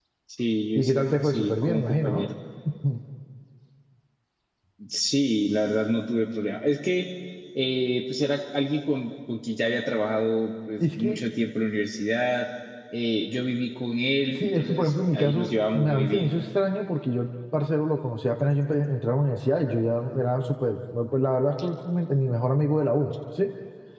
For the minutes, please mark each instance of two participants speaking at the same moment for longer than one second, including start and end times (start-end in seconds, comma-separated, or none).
0.8-2.3, 14.3-16.3